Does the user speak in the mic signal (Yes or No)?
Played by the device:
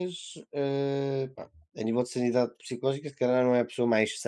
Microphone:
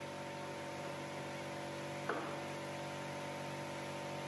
No